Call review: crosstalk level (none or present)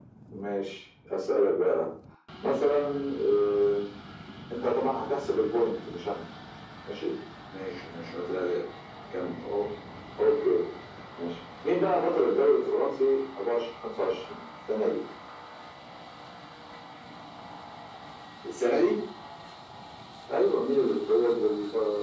none